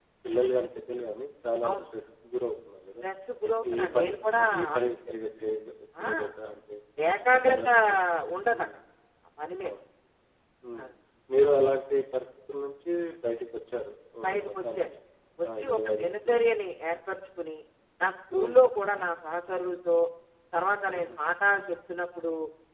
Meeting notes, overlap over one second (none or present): present